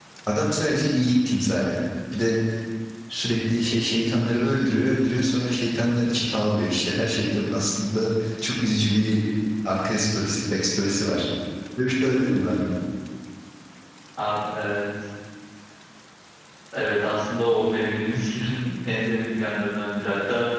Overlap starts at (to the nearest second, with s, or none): none